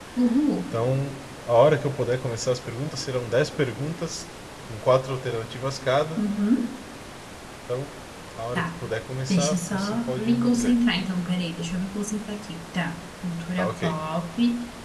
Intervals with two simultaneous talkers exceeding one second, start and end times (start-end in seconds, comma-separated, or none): 9.3-10.8